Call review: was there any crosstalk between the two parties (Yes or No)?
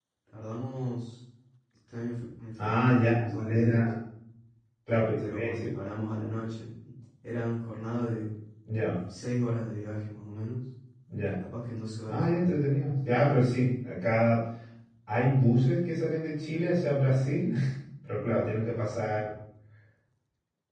Yes